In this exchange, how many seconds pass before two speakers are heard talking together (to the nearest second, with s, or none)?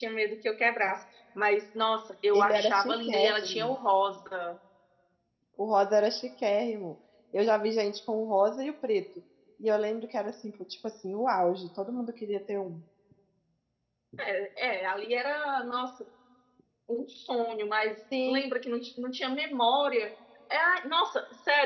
2 s